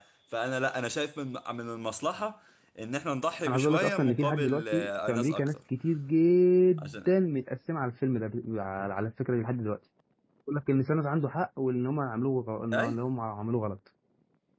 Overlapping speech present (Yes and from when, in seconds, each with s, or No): Yes, from 3.5 s